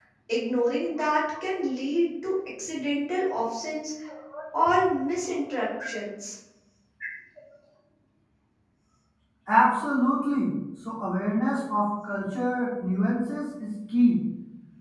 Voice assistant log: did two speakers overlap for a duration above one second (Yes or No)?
No